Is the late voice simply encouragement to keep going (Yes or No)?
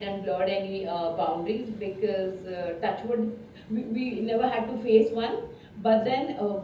Yes